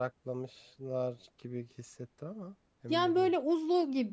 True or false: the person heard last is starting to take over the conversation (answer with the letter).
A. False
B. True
B